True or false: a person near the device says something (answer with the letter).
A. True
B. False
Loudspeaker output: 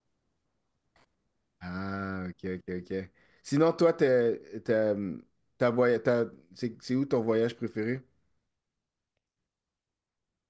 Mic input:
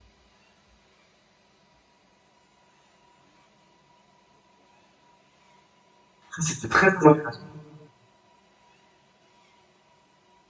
A